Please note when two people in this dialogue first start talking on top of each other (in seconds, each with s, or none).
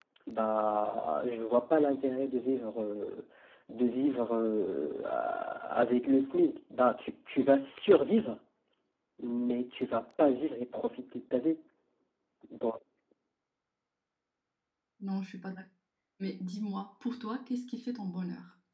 none